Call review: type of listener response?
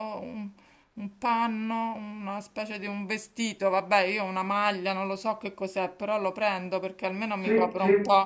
listening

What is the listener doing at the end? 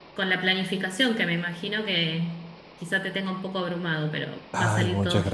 taking over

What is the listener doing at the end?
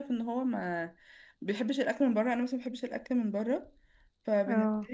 listening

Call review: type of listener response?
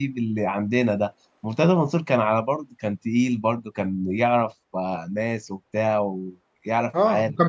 taking over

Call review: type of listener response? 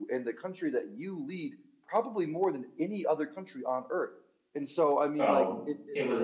taking over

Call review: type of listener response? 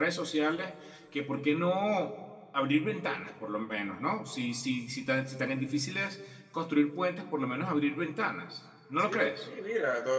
taking over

